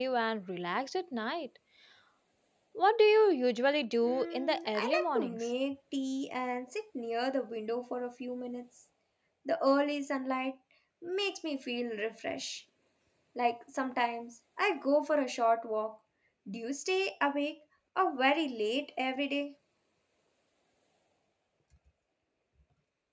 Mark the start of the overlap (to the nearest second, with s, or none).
4 s